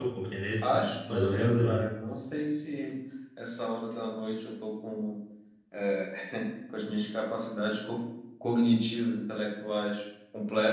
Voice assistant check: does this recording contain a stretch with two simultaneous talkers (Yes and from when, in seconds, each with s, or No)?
Yes, from 0.6 s